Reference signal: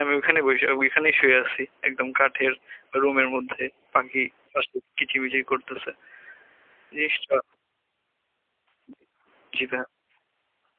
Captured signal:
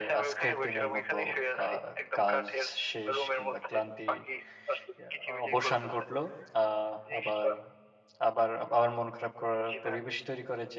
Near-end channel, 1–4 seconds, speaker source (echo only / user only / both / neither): both